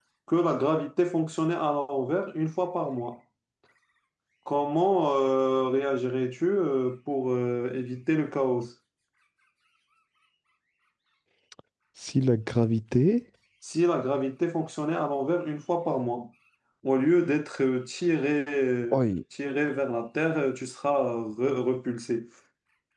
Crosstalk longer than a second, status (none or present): none